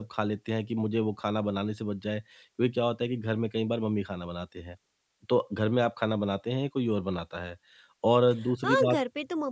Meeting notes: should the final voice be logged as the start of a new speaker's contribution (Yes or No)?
Yes